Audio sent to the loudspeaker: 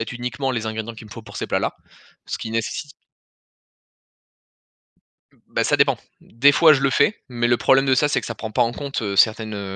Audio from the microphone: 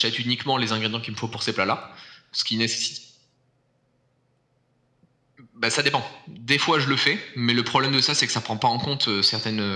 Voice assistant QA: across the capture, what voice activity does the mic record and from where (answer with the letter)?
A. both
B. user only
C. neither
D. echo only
D